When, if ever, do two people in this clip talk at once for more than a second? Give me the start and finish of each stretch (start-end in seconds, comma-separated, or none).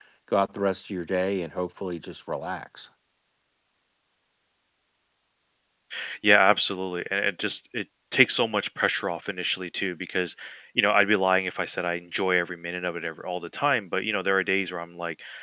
none